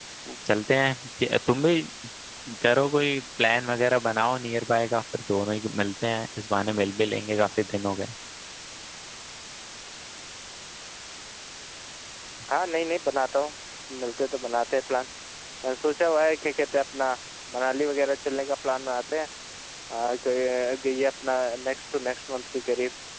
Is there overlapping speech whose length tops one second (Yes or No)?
No